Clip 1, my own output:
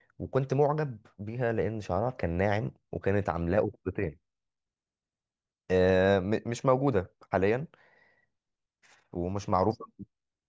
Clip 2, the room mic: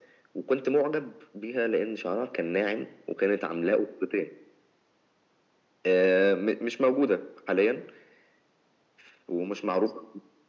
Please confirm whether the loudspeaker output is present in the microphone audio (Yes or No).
Yes